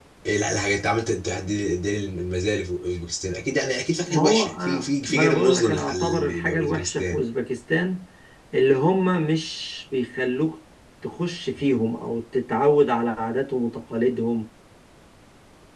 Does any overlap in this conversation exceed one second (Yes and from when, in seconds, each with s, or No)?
Yes, from 4.1 s